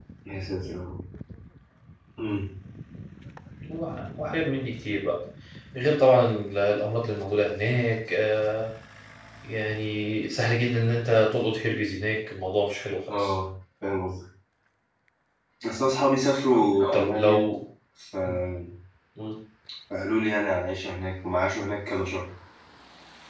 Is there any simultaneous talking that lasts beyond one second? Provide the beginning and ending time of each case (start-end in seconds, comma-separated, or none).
none